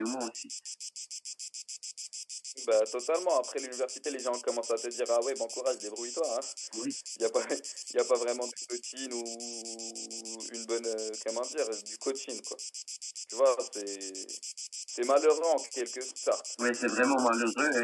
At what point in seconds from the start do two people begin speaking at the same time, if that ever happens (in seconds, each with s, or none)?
none